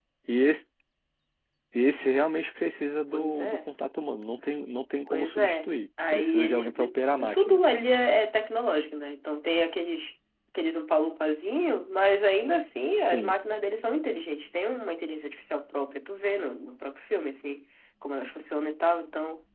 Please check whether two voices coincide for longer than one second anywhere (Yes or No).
Yes